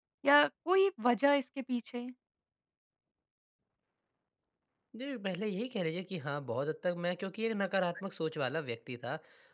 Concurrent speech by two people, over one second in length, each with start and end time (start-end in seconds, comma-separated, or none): none